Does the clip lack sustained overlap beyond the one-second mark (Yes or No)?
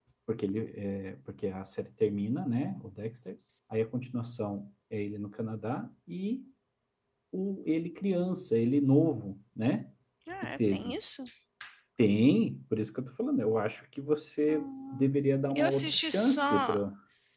No